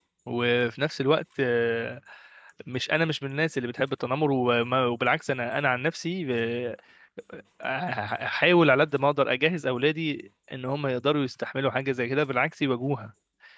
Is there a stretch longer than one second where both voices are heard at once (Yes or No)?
No